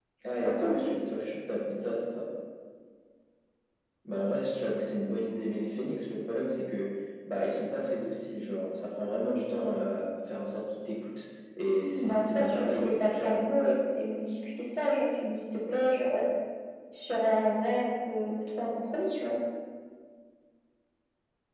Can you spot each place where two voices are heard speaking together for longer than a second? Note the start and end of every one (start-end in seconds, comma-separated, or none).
12.0-13.4